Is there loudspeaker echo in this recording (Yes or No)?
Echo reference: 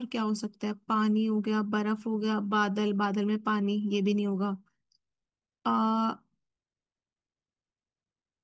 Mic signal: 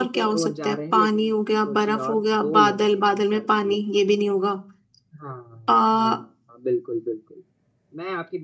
Yes